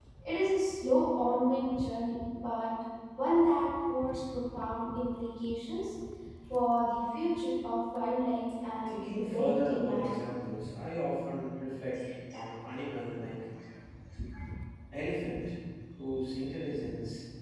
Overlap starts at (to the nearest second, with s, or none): 9 s